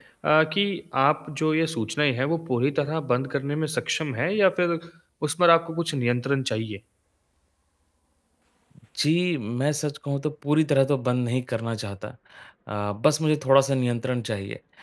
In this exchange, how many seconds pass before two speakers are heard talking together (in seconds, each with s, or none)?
none